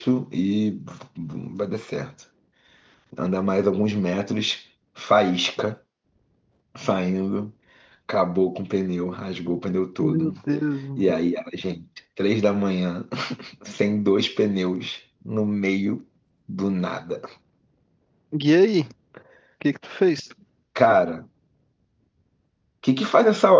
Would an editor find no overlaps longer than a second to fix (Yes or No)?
Yes